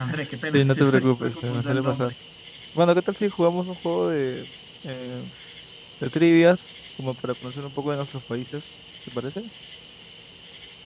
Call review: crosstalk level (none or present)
present